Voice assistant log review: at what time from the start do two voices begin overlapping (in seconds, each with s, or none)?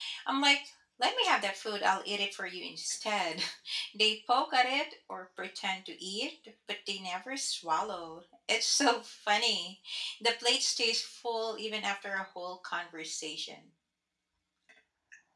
none